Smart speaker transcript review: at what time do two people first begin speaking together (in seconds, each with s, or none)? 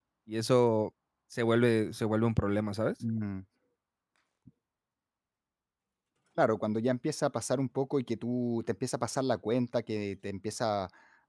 none